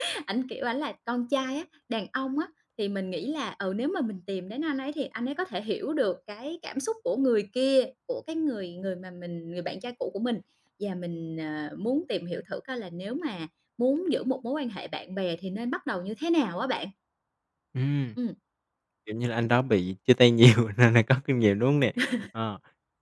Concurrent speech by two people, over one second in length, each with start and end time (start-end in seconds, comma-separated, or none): none